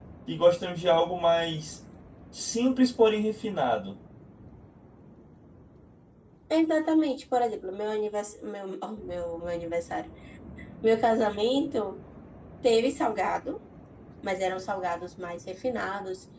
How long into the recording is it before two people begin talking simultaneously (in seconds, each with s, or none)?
none